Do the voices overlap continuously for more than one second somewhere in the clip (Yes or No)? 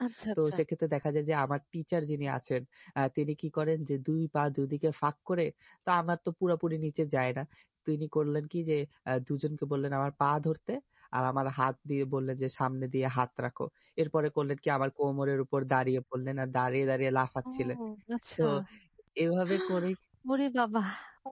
No